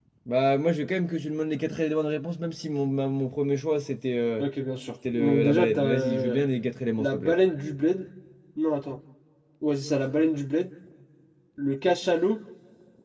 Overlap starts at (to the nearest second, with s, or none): 5 s